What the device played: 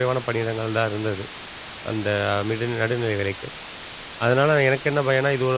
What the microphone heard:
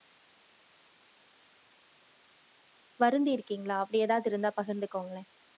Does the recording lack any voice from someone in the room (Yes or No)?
No